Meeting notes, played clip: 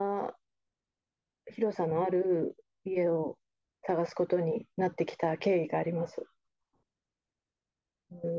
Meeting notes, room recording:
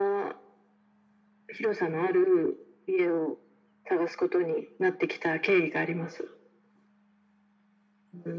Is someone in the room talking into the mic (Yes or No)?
No